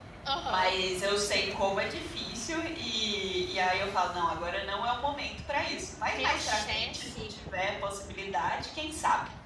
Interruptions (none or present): present